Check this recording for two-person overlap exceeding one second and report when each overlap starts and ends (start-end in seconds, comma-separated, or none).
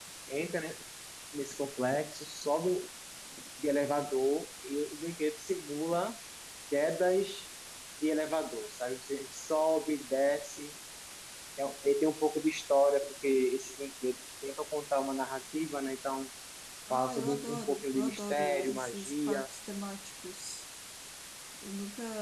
16.9-19.5